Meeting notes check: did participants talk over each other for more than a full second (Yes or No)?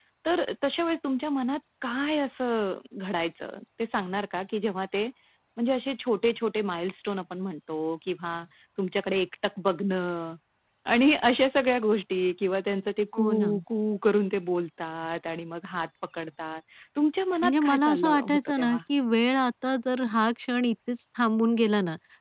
Yes